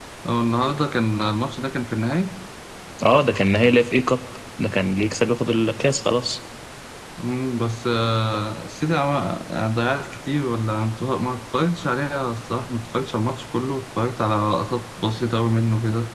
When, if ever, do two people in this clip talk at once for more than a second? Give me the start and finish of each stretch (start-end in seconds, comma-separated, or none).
none